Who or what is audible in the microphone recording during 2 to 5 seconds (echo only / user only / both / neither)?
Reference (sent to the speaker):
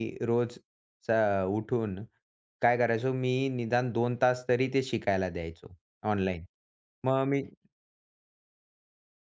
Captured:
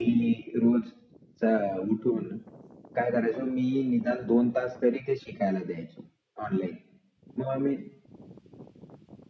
echo only